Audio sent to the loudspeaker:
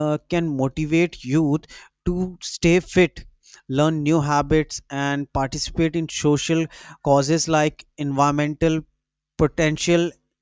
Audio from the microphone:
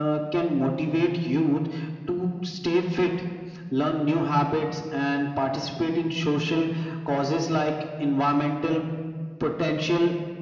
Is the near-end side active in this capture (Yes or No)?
No